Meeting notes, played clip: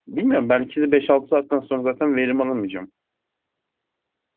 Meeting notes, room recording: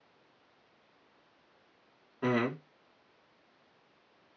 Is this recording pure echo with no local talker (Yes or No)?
No